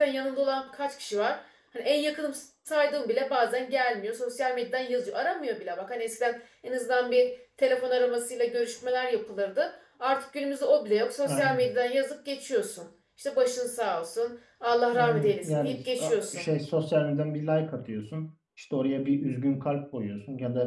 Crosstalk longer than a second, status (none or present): present